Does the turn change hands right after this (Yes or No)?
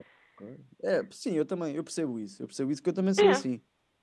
No